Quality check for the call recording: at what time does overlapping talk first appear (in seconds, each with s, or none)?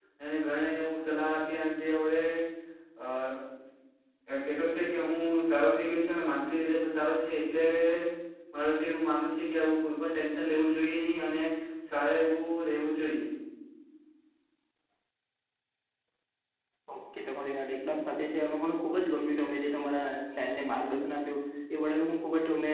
none